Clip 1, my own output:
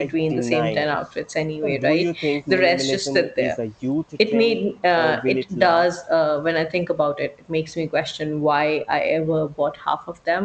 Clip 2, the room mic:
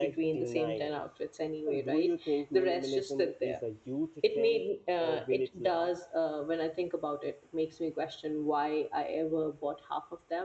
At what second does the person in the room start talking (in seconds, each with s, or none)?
none